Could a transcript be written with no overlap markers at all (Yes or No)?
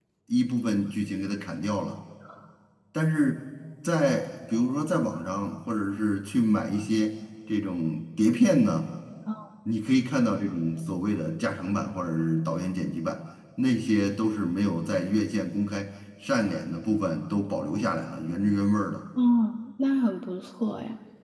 Yes